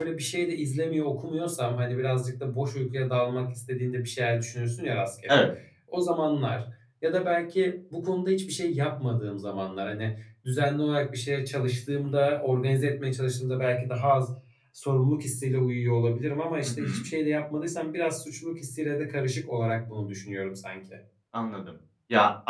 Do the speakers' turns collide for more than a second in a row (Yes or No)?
No